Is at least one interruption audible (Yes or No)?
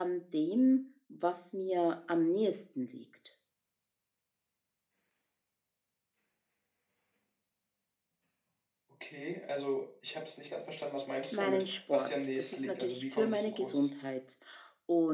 Yes